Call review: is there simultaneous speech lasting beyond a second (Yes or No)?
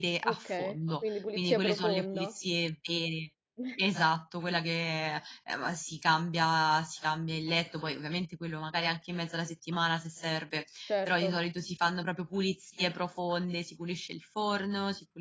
Yes